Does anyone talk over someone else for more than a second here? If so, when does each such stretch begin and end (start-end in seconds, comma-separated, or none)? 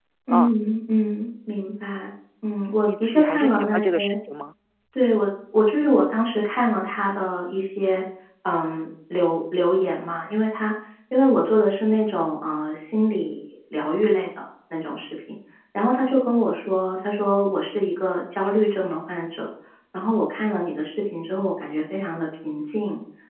2.9-4.2